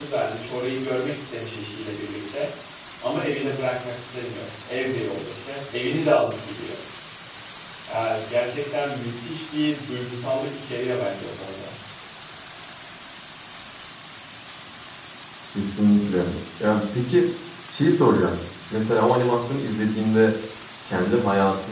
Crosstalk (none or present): none